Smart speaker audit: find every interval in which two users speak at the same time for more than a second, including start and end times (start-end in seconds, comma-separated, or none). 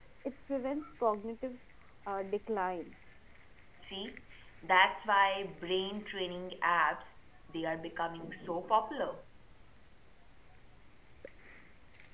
none